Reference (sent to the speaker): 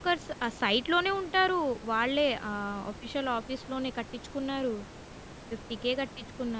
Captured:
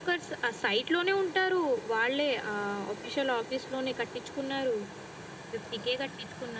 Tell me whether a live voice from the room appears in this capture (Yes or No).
No